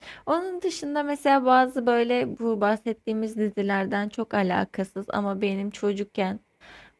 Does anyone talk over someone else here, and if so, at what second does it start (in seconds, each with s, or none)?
none